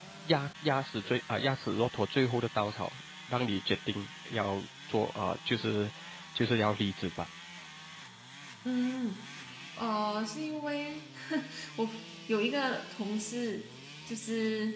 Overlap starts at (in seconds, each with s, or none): none